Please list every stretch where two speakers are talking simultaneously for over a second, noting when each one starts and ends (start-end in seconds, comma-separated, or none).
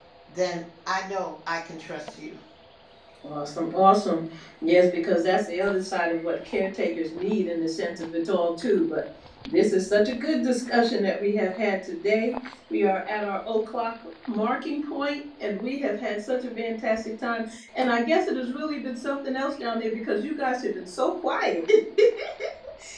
none